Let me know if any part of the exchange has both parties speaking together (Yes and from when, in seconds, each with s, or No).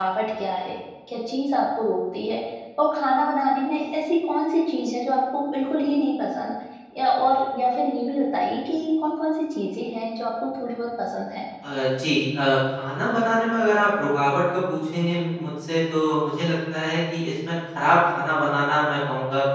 No